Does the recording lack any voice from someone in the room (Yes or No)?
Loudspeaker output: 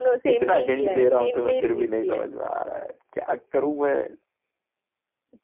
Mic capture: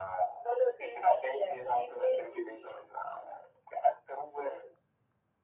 Yes